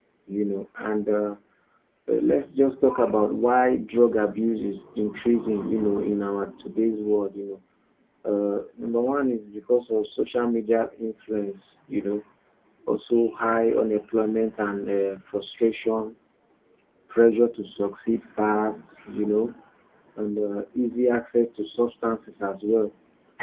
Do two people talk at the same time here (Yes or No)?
No